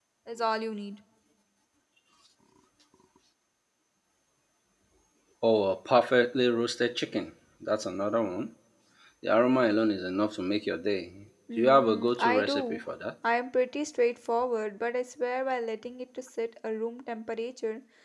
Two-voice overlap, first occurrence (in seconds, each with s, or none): 11.5 s